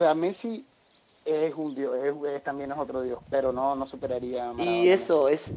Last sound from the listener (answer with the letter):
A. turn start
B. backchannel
A